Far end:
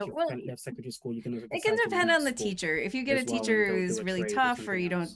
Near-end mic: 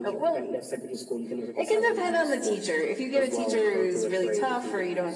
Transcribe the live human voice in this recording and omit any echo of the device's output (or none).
none